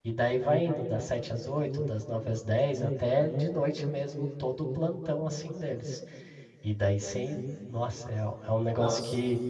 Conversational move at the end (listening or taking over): listening